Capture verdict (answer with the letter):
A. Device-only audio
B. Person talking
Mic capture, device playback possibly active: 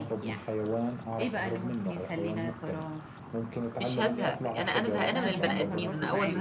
B